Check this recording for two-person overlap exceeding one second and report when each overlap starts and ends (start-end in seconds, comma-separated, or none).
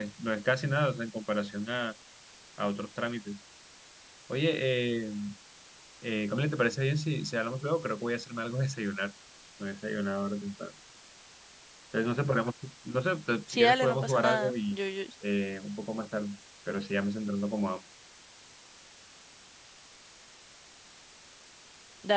13.5-14.8